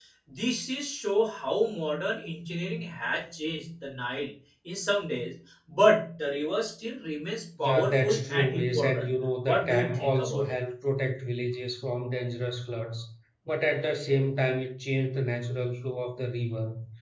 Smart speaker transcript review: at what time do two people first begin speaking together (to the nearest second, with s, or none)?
8 s